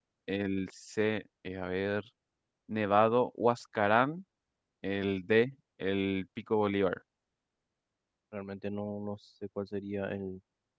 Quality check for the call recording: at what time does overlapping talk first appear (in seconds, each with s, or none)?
none